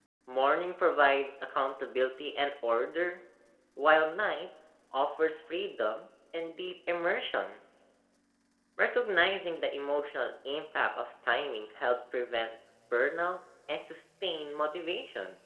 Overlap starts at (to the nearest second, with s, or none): none